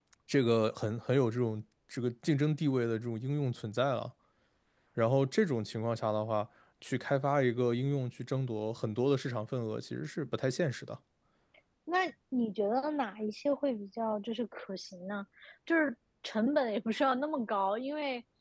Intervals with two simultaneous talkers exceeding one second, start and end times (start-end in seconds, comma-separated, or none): none